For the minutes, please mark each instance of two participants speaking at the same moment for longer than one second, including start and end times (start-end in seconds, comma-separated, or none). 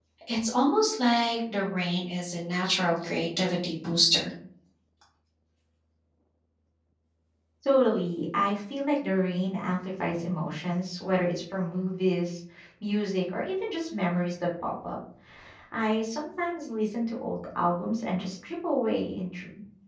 none